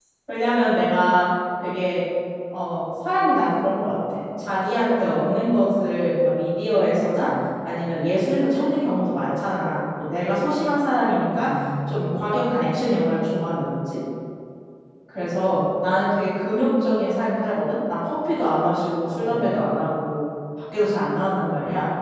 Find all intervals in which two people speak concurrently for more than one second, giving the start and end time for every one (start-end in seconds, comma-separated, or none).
none